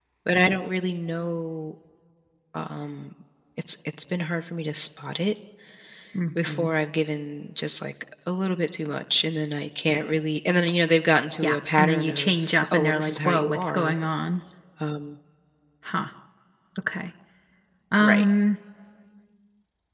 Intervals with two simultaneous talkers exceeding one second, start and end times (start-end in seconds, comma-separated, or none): 11.4-13.9